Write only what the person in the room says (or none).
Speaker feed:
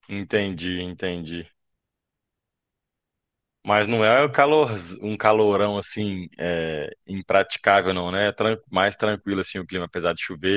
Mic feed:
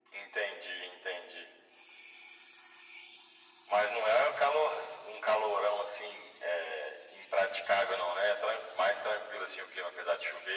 none